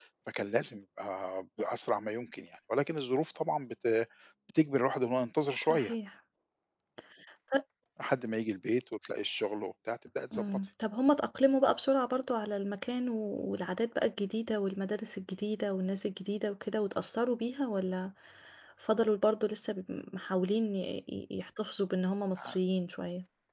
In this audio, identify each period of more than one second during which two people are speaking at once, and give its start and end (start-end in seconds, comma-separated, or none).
none